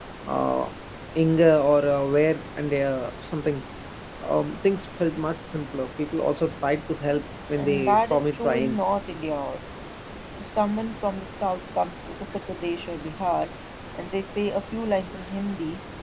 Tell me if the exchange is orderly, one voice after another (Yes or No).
No